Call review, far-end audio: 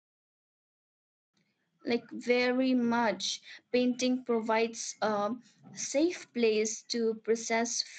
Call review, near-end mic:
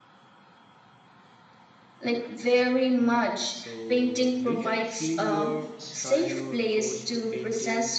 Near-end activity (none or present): present